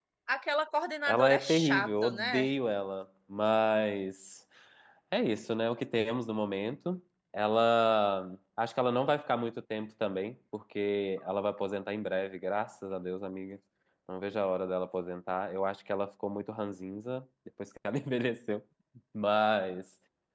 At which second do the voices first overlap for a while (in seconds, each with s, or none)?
1.1 s